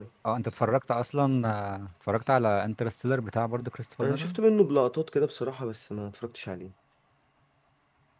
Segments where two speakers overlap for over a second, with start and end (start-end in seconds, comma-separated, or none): none